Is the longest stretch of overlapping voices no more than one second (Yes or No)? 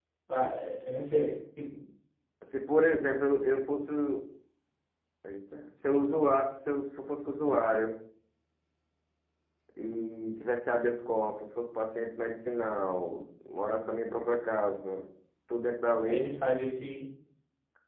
Yes